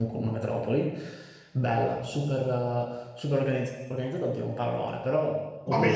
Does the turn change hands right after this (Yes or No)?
No